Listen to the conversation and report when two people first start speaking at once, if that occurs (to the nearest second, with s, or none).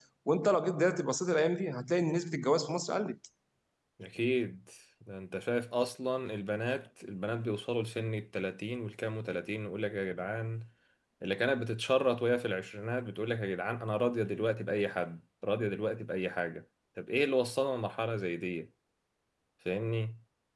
none